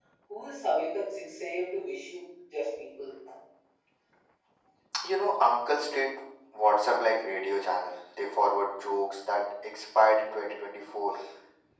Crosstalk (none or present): none